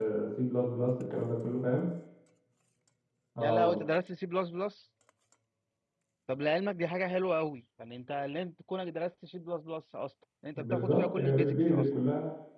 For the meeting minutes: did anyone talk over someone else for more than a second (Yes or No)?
Yes